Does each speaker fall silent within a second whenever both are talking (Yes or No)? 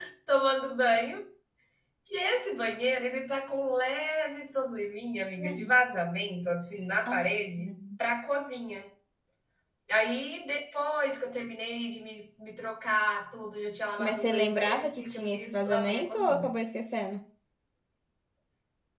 No